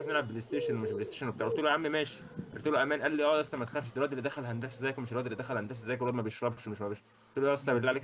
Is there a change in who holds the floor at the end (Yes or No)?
No